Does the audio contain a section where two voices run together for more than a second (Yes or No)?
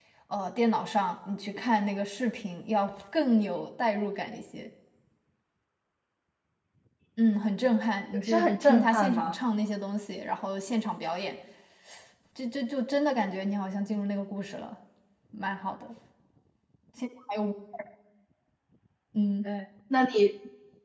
Yes